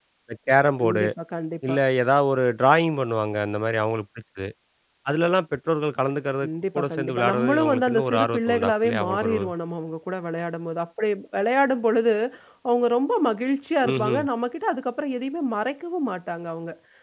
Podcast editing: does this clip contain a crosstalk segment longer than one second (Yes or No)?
Yes